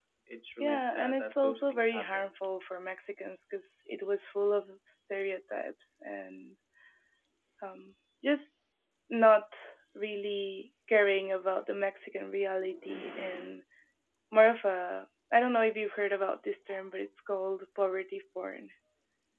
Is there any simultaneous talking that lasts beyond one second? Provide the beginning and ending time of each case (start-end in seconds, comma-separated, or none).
0.6-2.3